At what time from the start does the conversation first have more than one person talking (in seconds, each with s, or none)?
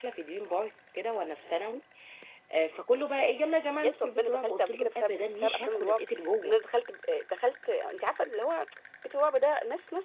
3.8 s